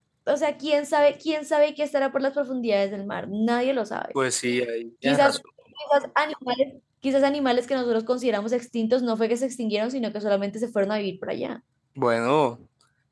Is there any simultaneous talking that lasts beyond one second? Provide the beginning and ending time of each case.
none

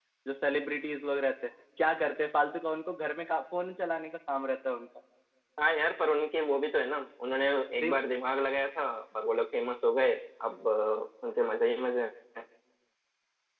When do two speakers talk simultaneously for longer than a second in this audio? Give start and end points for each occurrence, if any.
none

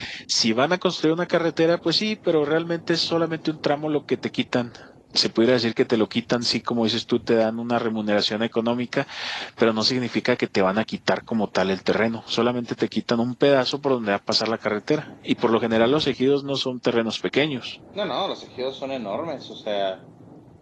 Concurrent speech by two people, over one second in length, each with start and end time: none

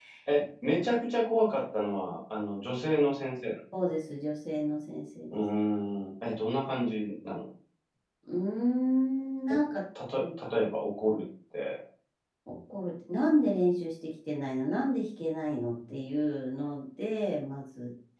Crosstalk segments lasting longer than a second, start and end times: none

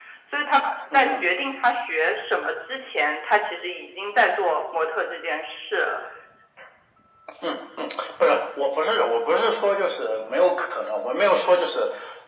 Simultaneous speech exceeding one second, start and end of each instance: none

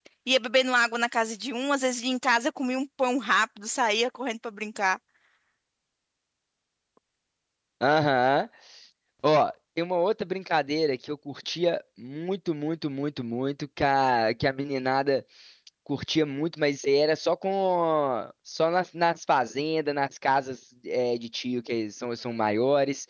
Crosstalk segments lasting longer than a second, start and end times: none

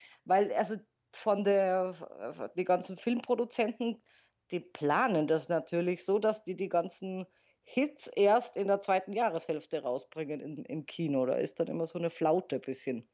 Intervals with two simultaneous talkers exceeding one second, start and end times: none

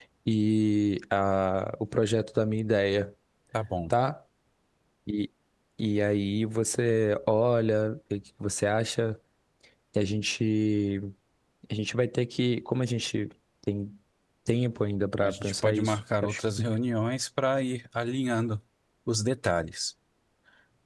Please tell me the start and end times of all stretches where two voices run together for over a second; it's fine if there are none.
15.2-16.7

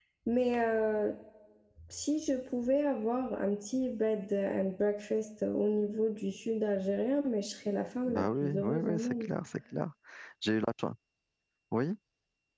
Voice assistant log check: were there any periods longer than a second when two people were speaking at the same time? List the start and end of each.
8.1-9.3

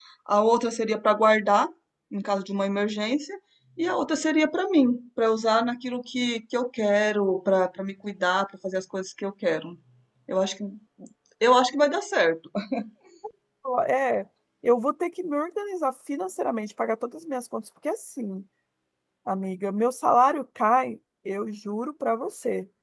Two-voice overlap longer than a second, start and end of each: none

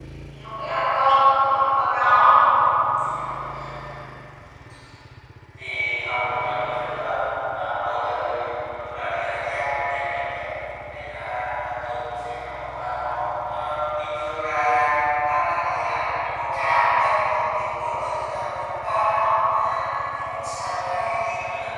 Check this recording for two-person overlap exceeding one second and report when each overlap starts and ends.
none

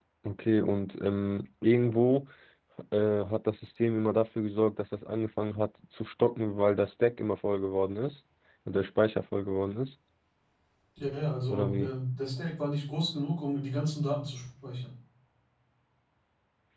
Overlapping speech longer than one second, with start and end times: none

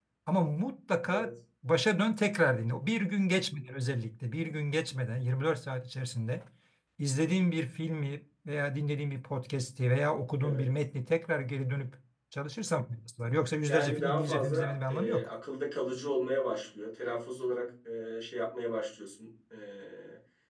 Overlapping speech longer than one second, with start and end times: 13.7-15.2

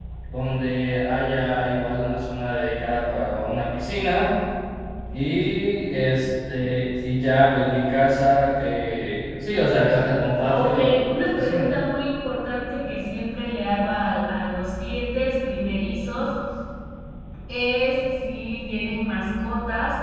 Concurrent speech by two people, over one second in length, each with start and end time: 10.4-11.7

